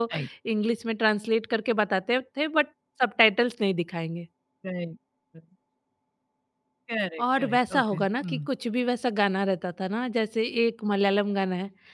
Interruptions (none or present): present